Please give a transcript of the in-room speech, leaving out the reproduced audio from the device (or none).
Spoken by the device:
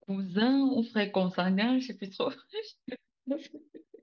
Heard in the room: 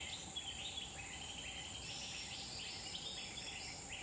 none